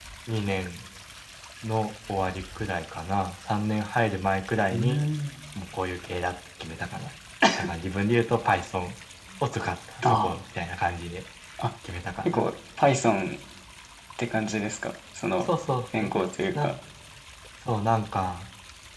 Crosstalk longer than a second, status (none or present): none